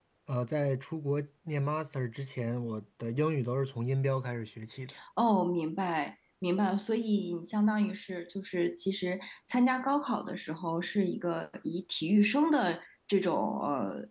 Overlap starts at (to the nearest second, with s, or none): none